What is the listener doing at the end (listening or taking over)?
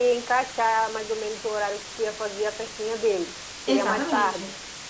taking over